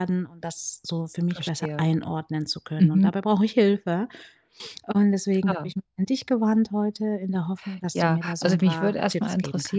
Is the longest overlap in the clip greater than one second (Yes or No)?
Yes